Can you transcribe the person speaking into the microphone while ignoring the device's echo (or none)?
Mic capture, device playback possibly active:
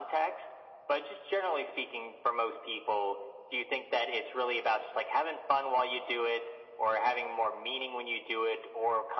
none